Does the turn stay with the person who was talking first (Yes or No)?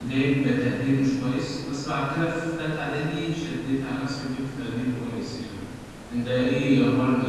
Yes